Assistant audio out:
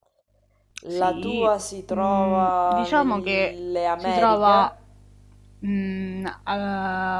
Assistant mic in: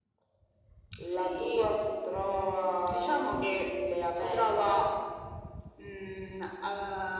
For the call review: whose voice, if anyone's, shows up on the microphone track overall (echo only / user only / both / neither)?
echo only